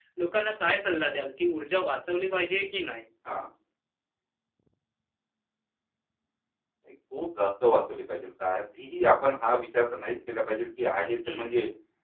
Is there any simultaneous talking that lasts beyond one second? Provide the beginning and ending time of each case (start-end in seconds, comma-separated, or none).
none